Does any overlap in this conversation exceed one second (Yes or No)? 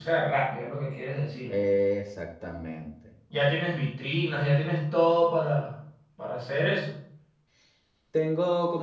No